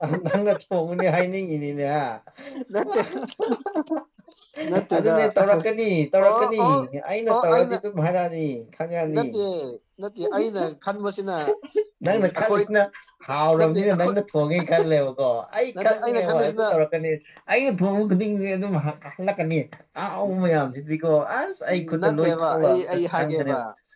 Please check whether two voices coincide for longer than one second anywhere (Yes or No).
Yes